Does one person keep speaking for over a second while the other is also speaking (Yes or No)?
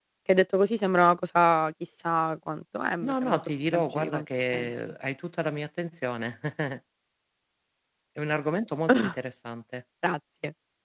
Yes